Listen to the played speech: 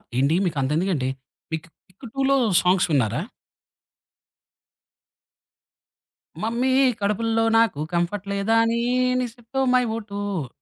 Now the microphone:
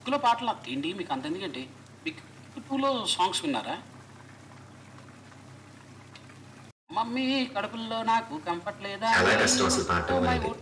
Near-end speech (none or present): present